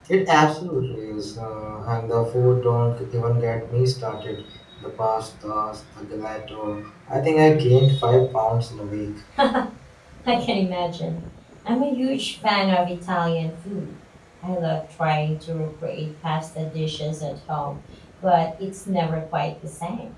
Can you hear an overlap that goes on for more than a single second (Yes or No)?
No